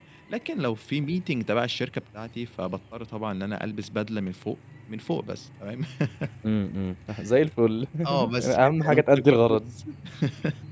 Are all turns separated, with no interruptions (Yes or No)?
No